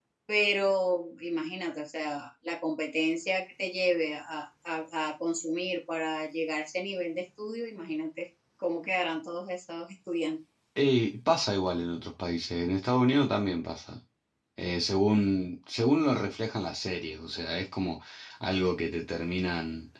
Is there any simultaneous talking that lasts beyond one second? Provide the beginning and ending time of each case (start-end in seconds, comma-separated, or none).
none